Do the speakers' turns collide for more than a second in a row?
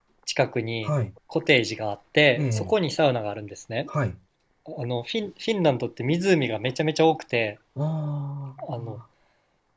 No

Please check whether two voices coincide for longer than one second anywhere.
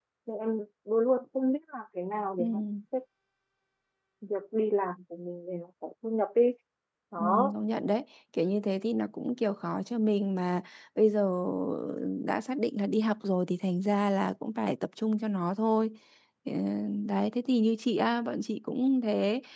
No

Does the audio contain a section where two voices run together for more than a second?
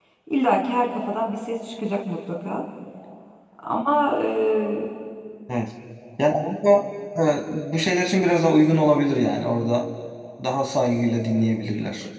No

